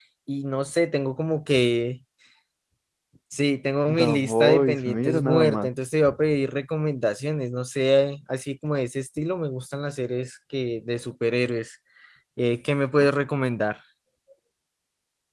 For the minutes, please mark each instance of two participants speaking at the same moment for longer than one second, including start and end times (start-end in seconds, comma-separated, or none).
3.9-5.7